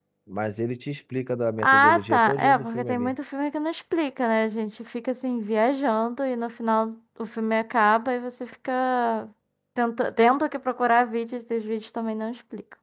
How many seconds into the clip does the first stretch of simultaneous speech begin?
1.6 s

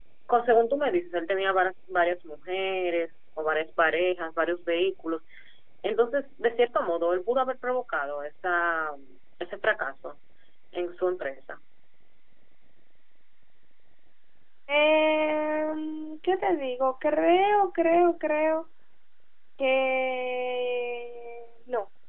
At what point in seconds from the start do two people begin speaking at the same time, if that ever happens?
none

